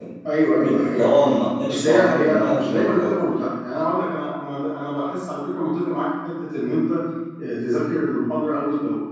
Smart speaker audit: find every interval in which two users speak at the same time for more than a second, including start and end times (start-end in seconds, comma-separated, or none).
0.6-3.2